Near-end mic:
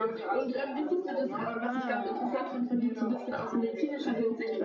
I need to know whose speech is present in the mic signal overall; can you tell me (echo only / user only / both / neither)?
both